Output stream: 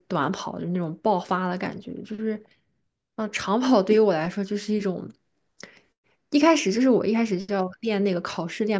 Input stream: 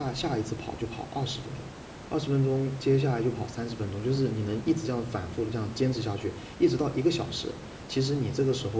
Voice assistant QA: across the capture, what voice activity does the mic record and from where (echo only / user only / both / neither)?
user only